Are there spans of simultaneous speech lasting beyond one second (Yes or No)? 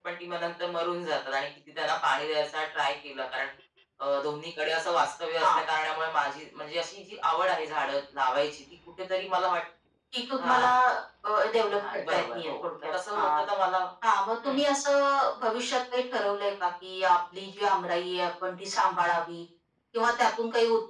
Yes